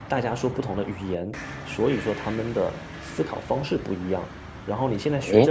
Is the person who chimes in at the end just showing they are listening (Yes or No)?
No